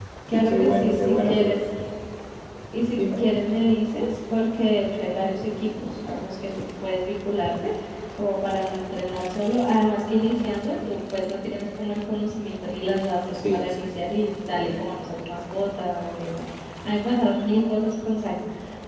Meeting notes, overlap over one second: present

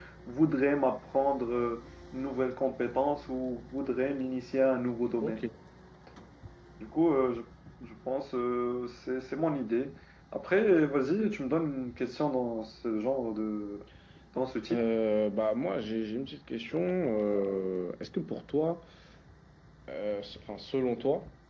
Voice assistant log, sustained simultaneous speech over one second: none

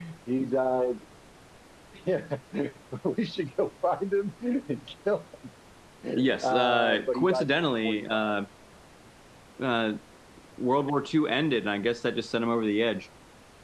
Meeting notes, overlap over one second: present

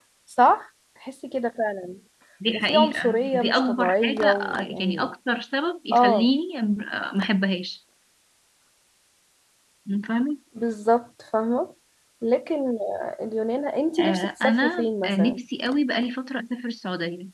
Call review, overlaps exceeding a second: present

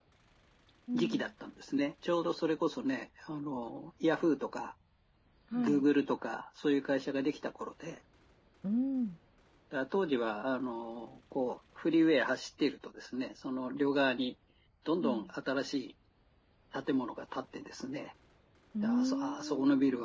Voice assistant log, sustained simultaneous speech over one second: present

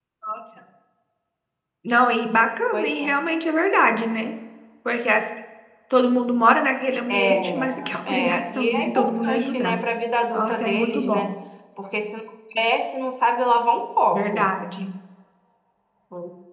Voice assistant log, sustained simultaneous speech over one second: present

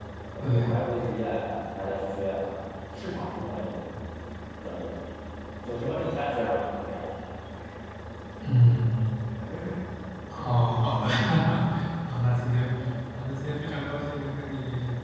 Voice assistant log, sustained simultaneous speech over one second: none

